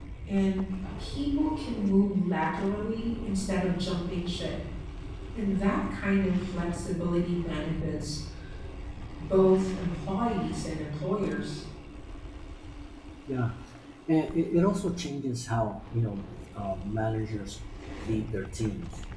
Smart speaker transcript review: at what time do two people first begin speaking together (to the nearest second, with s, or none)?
none